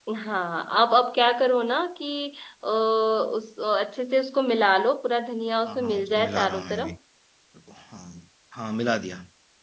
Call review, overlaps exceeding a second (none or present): present